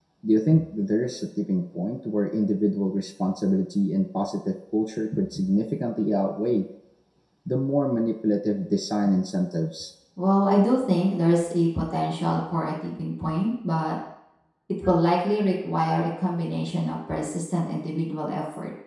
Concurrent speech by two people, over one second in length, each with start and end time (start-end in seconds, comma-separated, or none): none